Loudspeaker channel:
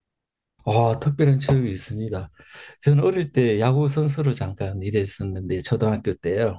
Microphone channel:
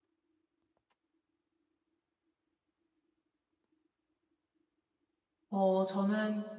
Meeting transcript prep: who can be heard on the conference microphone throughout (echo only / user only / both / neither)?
user only